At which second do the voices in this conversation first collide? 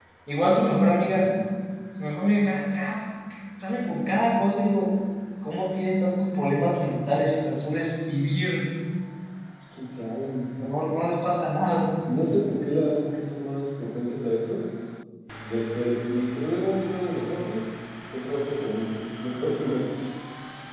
none

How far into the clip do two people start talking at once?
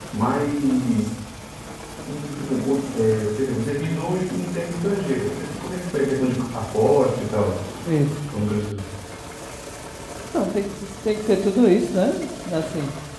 none

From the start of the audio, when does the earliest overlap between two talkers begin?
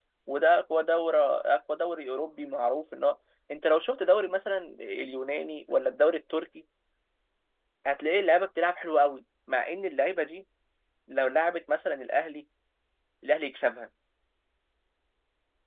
none

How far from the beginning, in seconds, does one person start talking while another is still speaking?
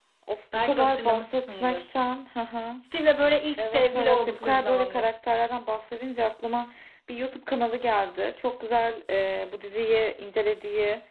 1 s

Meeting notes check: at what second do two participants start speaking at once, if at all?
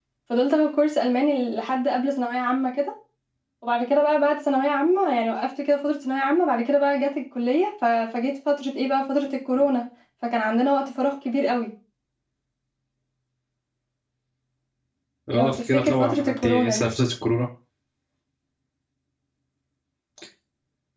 15 s

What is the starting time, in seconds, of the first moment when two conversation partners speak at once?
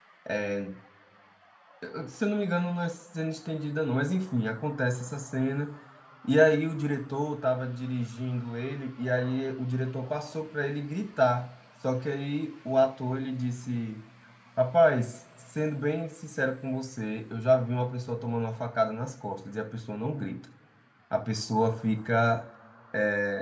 none

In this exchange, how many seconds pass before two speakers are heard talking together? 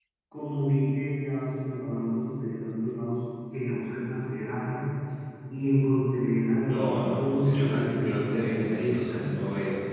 7 s

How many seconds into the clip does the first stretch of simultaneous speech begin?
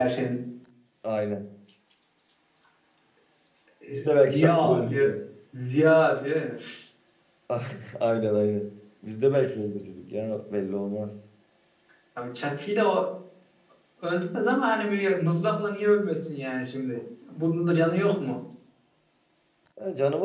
4 s

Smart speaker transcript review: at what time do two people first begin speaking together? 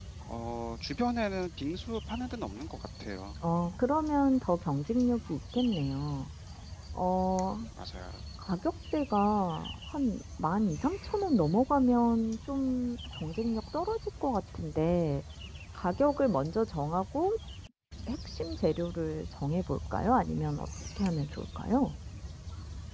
none

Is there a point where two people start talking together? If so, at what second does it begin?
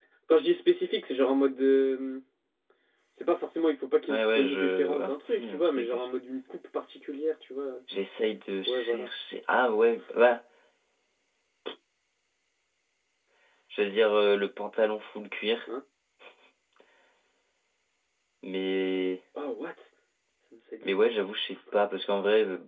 4 s

